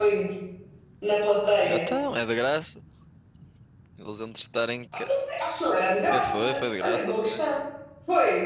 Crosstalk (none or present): present